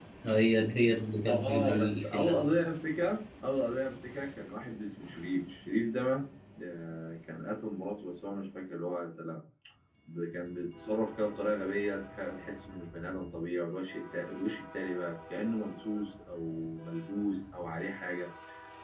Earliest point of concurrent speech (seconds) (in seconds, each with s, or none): 1.3 s